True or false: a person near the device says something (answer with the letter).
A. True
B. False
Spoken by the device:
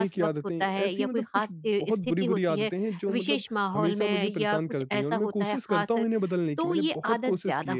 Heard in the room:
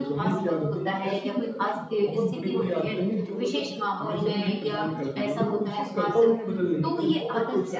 B